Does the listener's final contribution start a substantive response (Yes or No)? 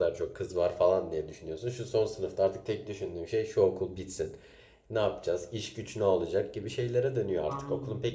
Yes